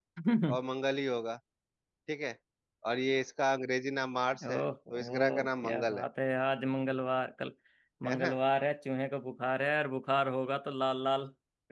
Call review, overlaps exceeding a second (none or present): present